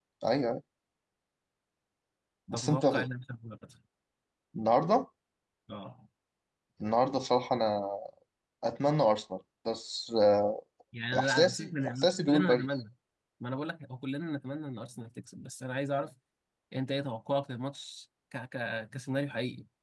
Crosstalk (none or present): present